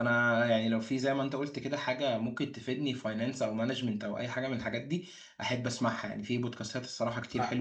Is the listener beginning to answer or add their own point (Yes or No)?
No